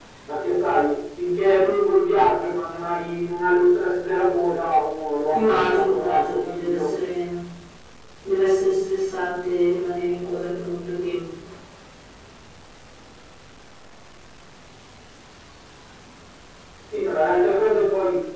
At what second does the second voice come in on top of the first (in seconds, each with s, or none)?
5.3 s